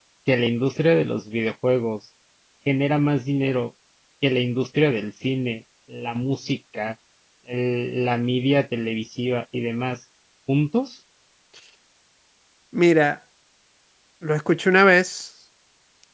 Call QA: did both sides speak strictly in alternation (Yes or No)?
Yes